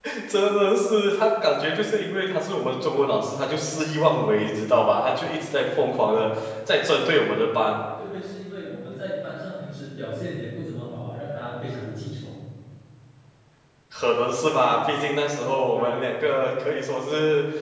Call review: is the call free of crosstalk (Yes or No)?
Yes